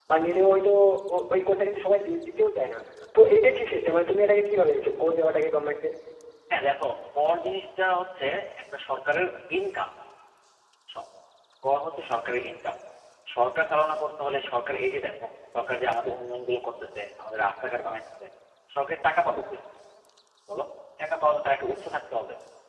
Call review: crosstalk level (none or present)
none